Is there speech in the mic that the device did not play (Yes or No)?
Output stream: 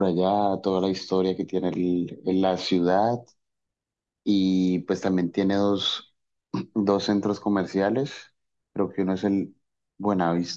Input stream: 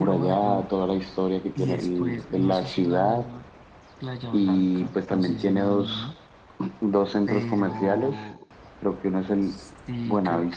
Yes